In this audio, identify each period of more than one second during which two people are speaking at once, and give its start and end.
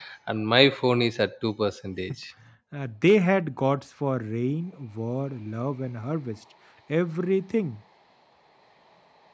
none

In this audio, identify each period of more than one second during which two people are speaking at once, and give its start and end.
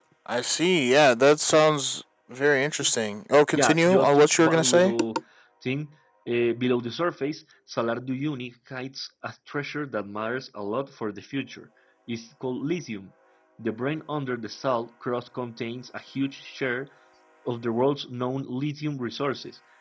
3.5-4.9

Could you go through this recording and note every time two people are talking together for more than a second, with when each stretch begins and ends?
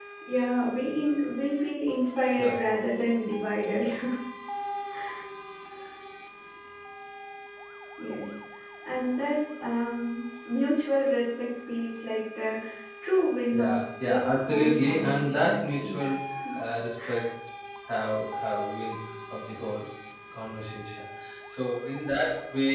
13.5-16.0

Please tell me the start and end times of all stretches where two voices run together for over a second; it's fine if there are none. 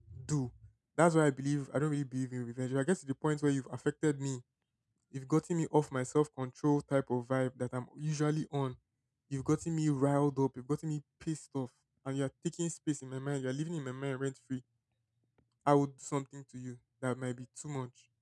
none

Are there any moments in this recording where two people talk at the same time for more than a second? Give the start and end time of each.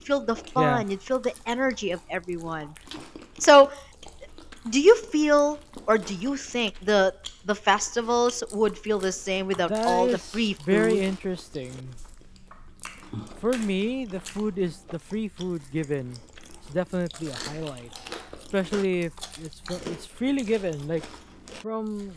9.7-11.0

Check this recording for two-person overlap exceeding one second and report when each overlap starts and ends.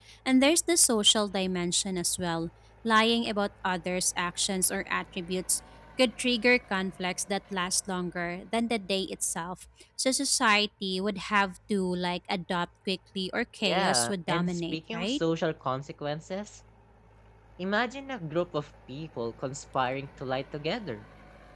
13.6-15.2

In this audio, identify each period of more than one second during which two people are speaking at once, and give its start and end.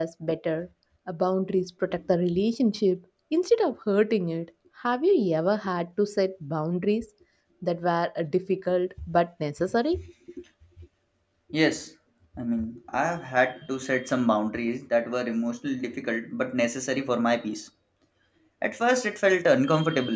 none

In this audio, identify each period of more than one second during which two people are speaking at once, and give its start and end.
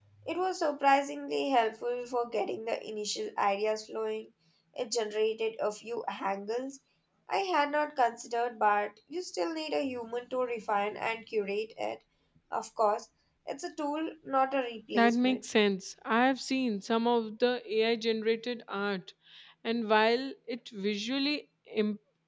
none

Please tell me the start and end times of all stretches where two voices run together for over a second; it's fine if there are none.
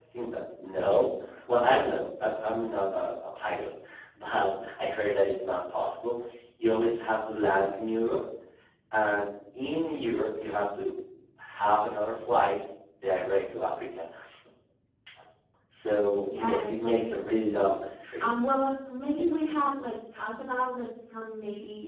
16.4-17.6

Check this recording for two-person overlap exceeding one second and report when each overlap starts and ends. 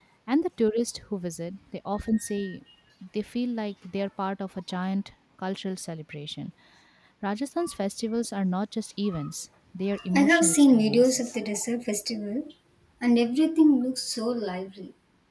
10.1-11.3

